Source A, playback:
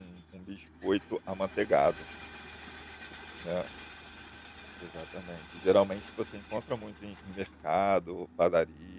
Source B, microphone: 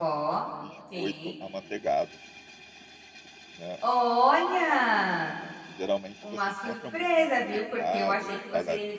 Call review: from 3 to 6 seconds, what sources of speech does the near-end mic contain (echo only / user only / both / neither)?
both